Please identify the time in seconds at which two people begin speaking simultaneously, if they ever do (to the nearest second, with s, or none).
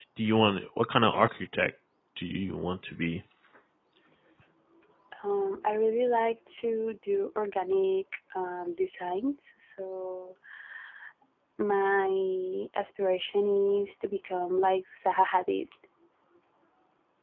none